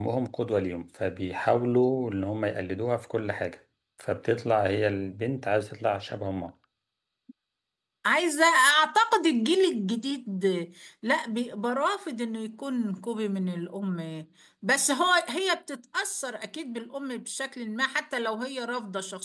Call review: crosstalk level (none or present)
none